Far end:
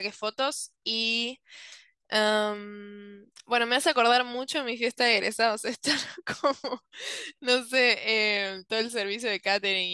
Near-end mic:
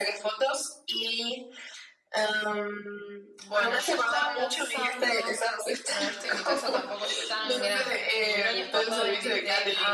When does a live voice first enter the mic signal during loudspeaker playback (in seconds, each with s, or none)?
3.4 s